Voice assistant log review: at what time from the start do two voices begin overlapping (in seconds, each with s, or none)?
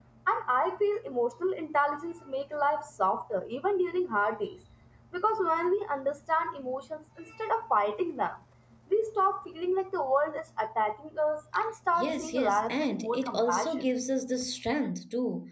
12.0 s